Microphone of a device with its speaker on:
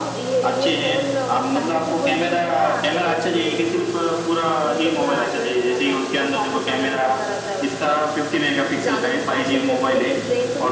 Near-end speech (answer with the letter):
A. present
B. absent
B